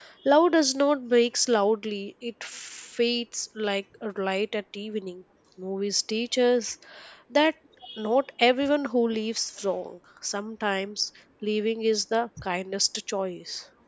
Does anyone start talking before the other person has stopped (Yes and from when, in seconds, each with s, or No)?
No